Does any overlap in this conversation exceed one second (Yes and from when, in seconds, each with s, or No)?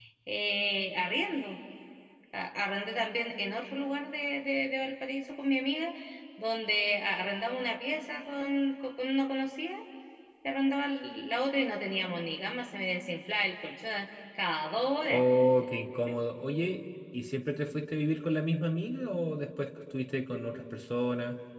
No